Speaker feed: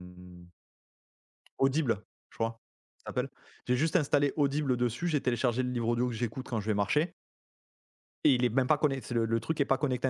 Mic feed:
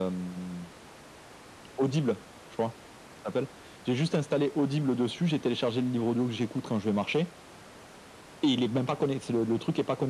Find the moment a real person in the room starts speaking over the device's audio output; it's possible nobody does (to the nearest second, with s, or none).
none